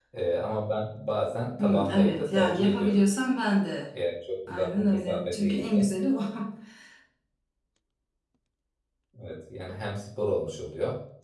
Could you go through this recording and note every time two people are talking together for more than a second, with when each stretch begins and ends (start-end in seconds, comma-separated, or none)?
1.6-3.0, 4.5-5.9